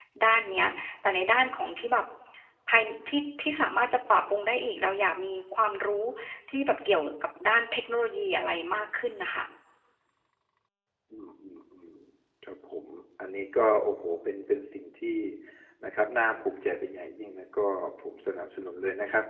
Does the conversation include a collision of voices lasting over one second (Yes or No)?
No